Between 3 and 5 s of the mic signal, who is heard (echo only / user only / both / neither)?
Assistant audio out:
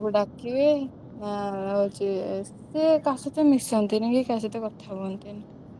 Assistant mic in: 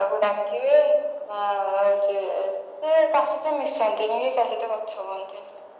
echo only